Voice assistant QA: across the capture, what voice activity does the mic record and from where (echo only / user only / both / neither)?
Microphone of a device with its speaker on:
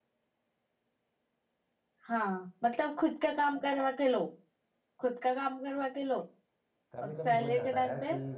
both